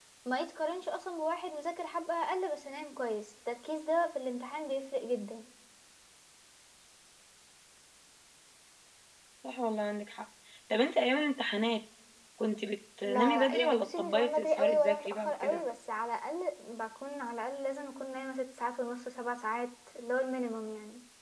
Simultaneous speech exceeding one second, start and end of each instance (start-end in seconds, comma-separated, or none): 13.0-15.6